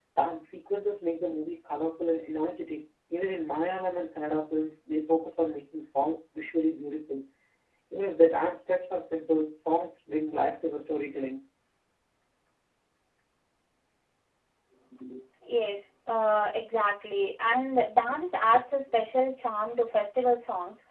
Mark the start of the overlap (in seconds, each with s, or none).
none